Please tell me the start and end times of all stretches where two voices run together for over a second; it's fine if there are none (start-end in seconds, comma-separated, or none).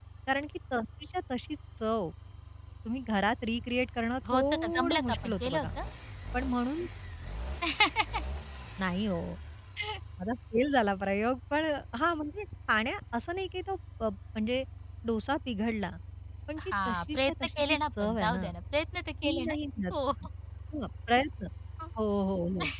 4.3-5.7, 16.6-18.5